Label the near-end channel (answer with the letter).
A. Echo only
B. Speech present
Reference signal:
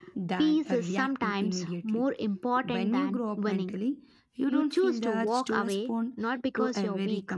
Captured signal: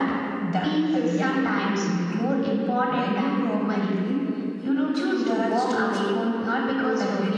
A